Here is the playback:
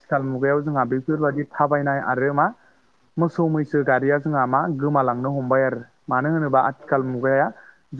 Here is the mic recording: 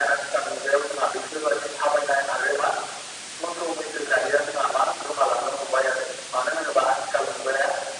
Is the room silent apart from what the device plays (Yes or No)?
Yes